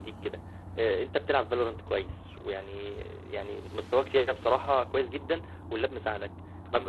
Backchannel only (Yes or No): Yes